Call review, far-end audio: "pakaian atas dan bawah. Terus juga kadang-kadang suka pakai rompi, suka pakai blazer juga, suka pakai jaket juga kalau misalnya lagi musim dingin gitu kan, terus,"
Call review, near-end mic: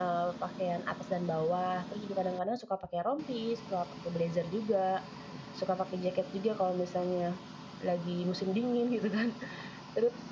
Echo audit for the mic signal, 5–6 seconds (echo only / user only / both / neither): echo only